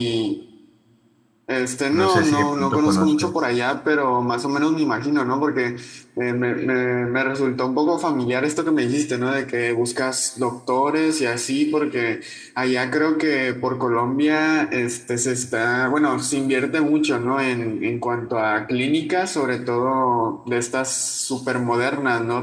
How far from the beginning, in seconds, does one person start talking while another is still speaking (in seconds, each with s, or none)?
1.9 s